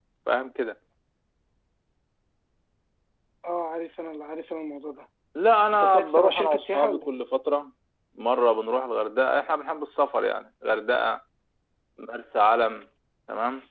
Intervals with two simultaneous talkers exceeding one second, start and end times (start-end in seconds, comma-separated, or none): 5.7-7.1